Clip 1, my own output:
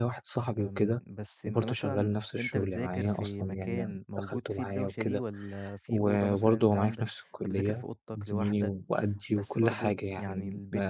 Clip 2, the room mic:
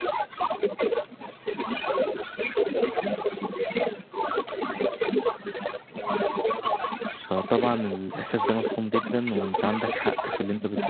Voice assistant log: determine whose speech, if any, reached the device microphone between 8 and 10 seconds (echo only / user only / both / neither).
both